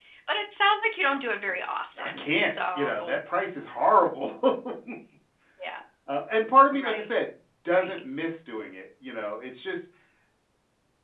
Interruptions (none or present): present